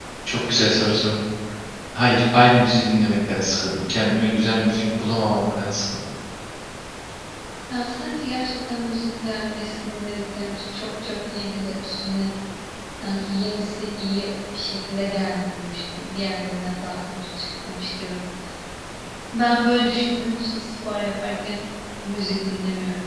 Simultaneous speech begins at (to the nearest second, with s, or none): none